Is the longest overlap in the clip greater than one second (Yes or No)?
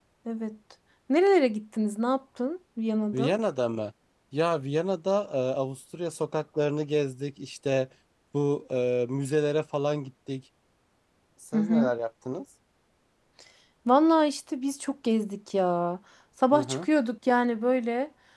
No